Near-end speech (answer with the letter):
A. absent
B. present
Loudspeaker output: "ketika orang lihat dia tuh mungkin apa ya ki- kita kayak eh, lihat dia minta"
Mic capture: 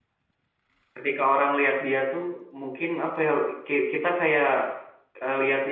A